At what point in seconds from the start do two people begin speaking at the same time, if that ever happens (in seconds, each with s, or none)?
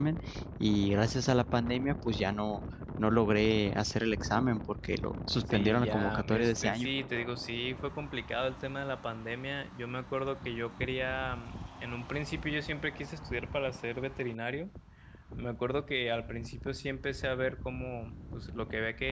5.5 s